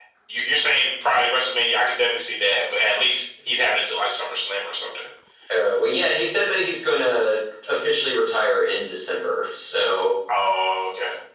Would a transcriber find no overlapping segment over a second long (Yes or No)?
Yes